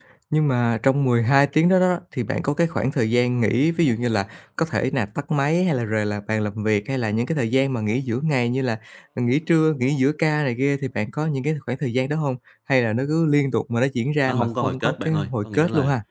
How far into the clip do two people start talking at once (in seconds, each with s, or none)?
14.3 s